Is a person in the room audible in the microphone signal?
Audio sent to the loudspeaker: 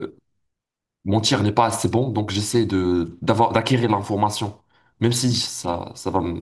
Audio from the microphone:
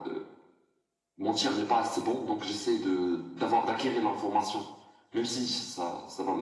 No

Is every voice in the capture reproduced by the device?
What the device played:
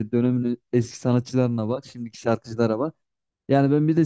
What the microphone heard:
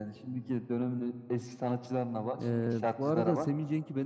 No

